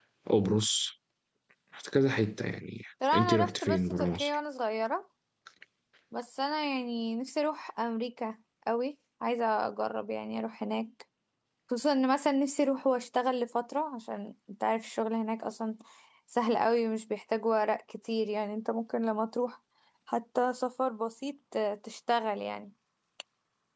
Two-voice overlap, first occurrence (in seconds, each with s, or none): 3.0 s